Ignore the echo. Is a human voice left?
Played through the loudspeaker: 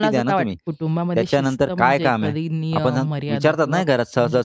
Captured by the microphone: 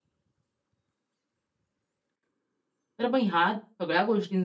Yes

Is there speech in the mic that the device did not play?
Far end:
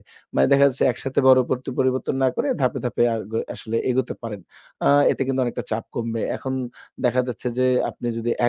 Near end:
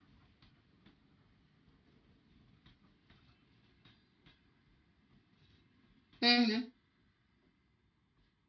Yes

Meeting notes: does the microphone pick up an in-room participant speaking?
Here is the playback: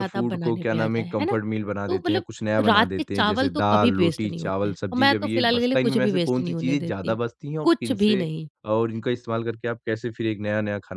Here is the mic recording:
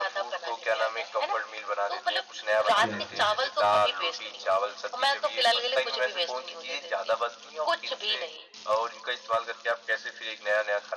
Yes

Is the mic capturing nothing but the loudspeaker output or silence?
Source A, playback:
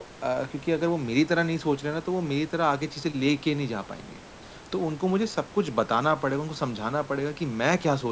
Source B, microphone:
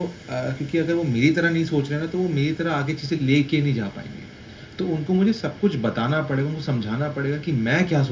Yes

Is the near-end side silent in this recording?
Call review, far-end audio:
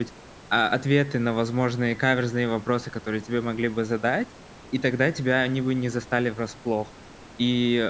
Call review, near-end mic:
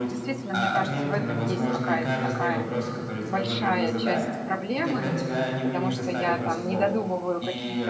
No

